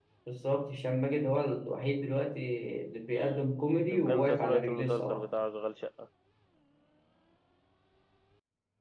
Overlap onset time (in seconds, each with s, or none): 3.9 s